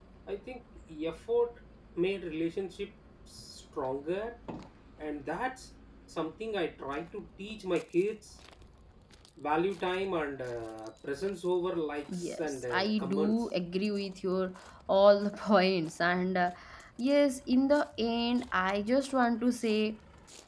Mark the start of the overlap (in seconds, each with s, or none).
12.1 s